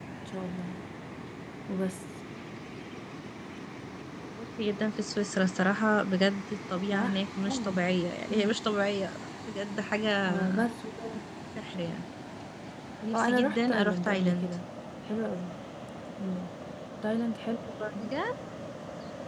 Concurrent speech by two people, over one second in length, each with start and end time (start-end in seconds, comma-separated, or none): 13.1-14.5